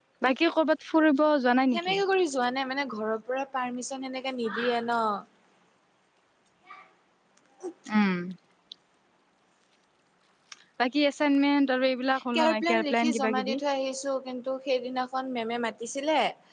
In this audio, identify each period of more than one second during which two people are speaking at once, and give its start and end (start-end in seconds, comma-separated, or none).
12.4-13.6